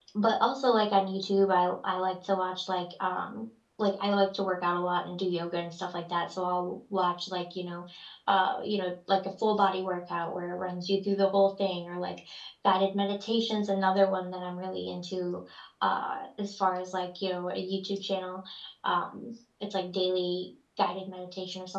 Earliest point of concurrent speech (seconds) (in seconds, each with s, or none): none